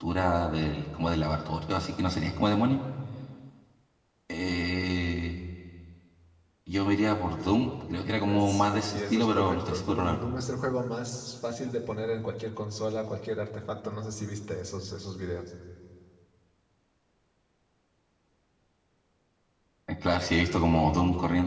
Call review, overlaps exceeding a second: present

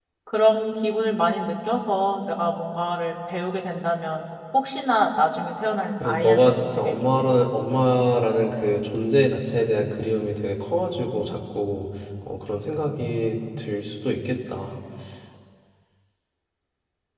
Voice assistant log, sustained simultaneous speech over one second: present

